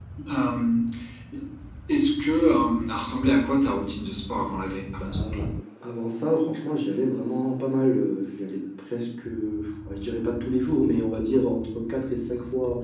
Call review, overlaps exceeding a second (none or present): none